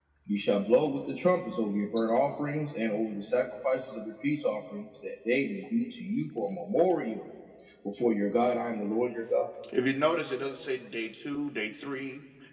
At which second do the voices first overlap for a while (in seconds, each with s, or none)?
none